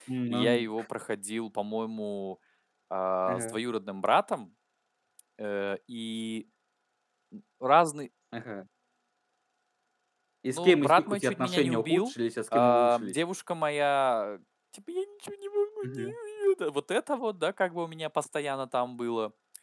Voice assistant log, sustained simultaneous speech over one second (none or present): present